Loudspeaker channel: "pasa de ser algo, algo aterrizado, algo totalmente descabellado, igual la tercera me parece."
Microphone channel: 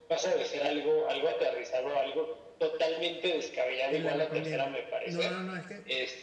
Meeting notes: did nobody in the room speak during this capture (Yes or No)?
No